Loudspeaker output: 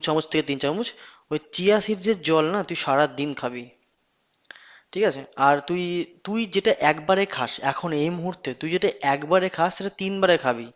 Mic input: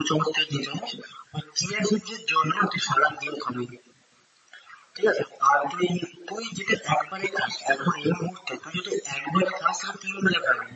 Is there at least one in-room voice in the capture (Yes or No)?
No